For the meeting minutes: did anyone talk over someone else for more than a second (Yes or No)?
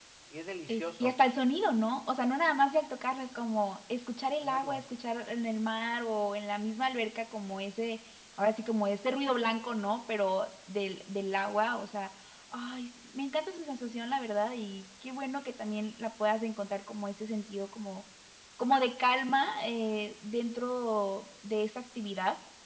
No